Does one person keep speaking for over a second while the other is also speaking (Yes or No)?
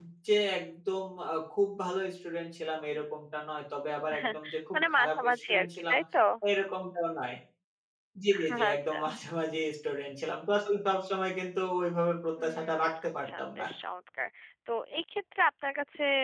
Yes